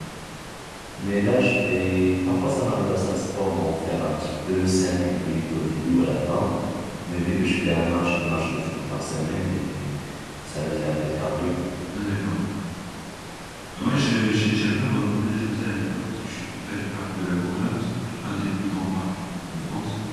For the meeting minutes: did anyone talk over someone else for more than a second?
No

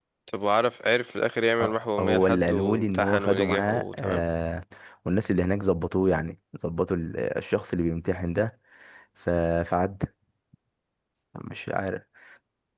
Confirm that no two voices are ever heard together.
No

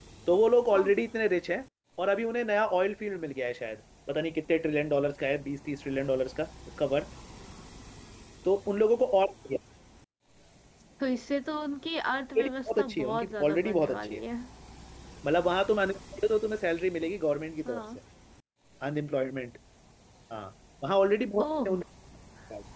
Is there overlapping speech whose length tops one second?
Yes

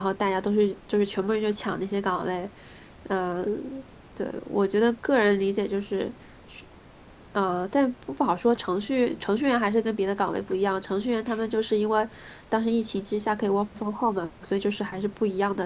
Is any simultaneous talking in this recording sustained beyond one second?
No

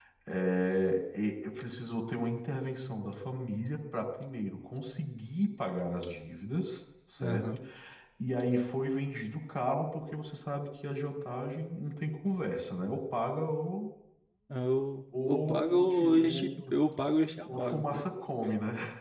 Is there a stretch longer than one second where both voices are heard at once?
Yes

